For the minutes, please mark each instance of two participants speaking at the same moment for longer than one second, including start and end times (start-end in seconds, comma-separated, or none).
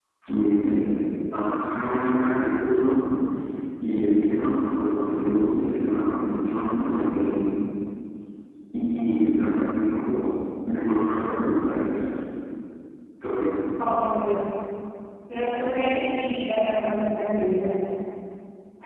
none